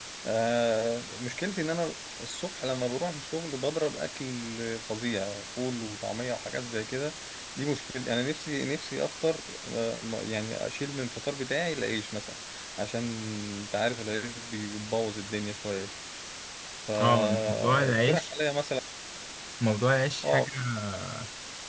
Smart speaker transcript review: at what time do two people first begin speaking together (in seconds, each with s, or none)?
17.0 s